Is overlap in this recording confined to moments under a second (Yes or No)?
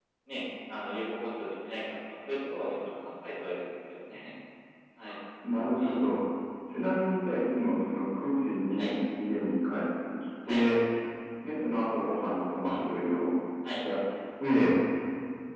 Yes